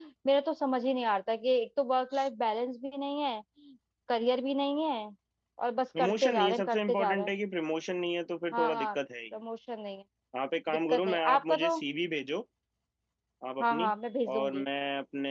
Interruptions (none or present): present